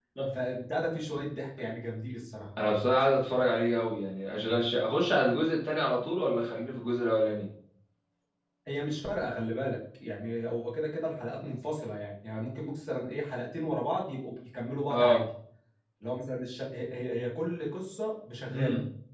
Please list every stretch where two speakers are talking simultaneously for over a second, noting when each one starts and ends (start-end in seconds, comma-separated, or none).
none